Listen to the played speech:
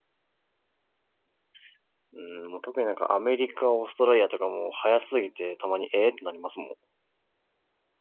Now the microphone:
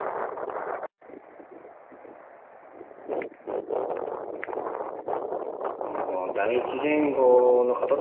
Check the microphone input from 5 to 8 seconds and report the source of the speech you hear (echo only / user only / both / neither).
user only